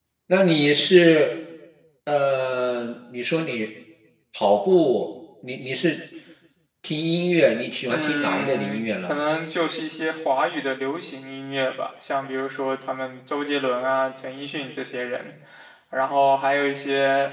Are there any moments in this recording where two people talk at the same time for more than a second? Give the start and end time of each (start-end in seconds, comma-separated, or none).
7.9-9.2